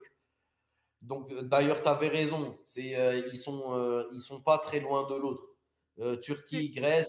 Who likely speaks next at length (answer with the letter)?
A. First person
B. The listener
A